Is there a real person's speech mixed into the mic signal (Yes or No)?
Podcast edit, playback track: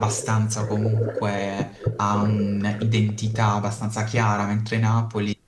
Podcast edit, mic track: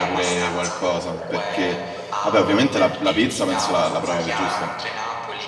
Yes